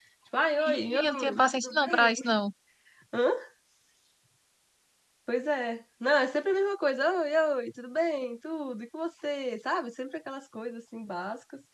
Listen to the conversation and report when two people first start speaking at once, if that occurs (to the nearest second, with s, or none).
1 s